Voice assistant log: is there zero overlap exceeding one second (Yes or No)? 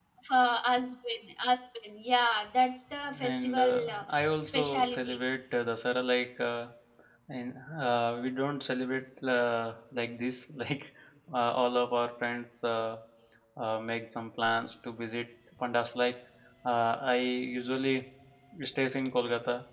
No